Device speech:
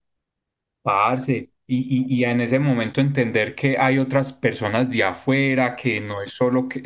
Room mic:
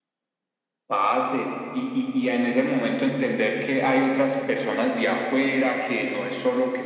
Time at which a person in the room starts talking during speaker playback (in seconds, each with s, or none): none